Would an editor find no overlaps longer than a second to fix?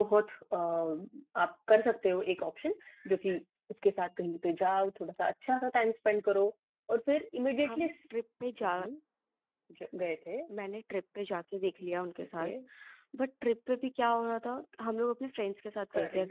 Yes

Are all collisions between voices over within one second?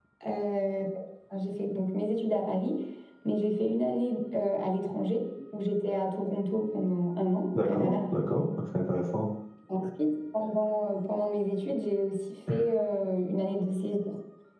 Yes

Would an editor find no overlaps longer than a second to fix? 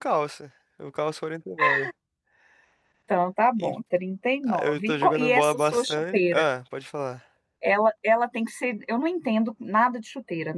No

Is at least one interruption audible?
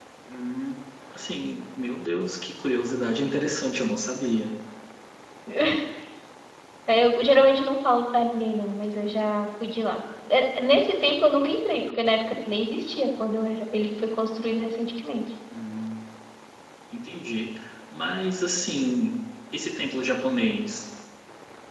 No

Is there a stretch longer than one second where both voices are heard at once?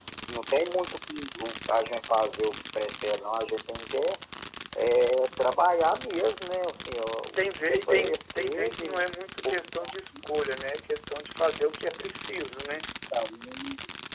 Yes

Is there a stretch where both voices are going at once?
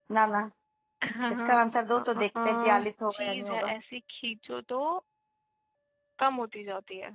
Yes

